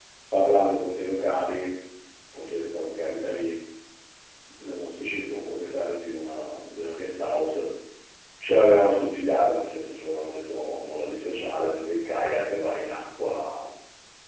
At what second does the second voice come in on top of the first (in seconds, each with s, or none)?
none